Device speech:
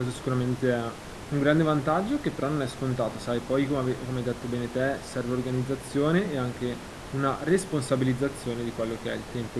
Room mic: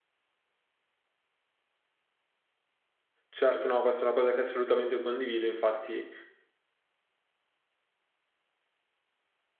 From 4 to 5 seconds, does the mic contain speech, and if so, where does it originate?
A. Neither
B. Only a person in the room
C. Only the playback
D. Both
B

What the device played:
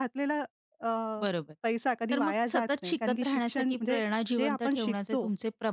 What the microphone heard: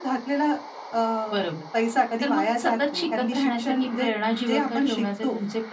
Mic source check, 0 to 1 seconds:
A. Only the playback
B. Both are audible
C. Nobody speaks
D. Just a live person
A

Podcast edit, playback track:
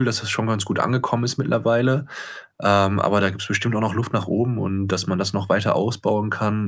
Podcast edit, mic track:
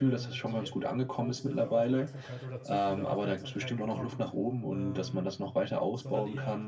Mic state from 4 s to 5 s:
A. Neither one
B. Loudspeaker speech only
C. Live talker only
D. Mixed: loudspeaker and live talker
D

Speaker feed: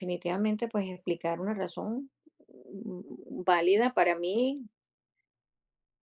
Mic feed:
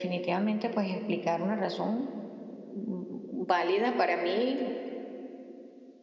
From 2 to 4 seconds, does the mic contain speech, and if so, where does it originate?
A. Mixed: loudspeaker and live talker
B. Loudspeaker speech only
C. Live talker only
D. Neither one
B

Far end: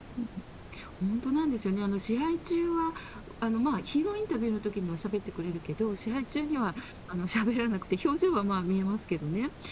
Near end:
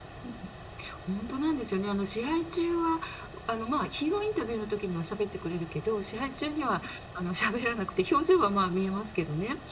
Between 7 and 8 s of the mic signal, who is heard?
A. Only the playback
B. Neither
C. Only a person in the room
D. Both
A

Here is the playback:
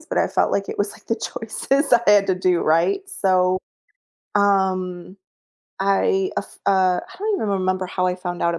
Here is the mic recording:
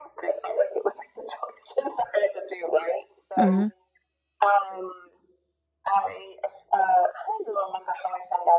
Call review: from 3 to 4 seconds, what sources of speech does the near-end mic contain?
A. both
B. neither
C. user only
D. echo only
A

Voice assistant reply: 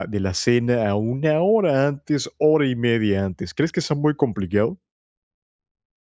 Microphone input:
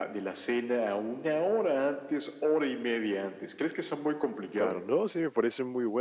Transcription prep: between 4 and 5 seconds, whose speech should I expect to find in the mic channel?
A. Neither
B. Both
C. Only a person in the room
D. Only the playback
B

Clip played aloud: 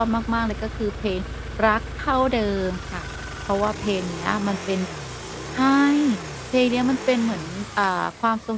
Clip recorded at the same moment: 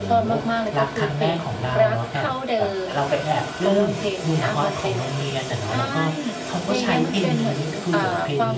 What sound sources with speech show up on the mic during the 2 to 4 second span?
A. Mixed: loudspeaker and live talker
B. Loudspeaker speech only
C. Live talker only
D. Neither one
A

